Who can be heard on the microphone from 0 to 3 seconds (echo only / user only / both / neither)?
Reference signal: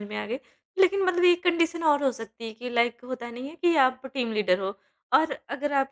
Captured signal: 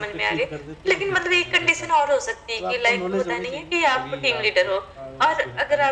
both